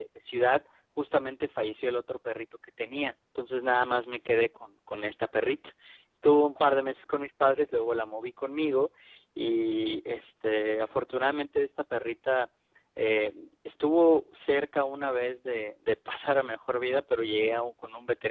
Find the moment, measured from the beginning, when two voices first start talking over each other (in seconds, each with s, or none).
none